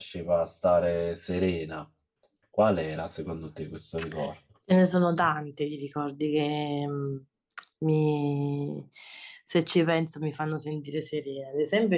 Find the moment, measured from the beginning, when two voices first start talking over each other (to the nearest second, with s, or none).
none